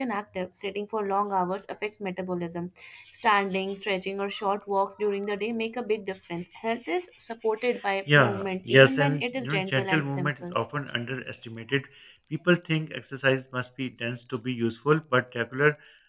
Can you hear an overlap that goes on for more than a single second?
Yes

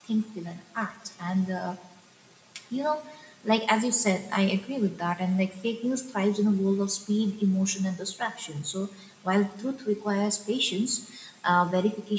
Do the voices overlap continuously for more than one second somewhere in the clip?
No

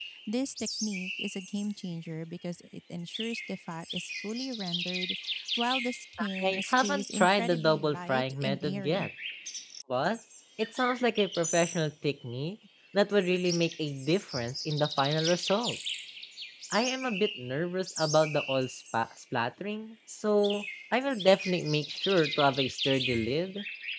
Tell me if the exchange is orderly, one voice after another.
No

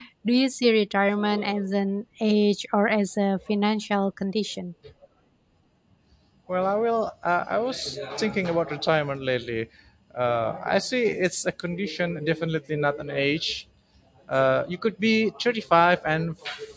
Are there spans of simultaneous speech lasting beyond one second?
No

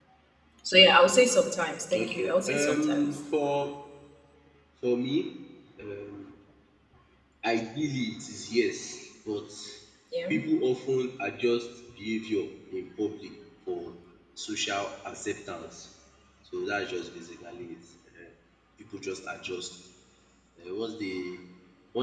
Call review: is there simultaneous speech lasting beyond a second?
Yes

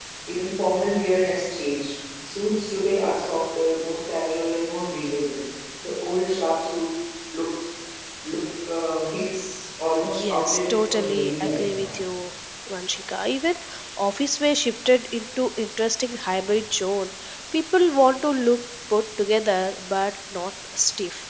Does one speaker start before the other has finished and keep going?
Yes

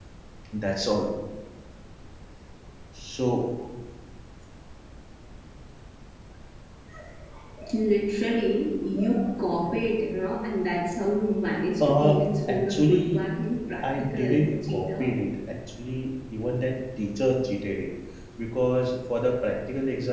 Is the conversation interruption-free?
No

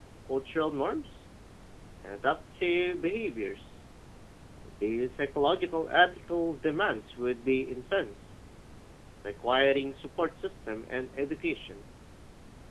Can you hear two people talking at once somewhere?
No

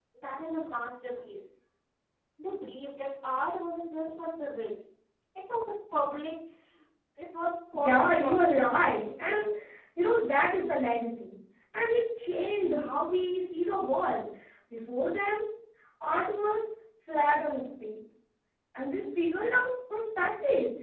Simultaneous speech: Yes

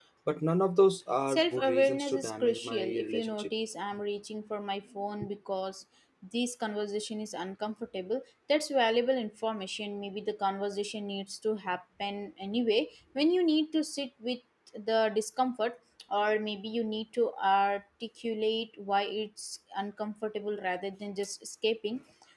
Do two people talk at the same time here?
Yes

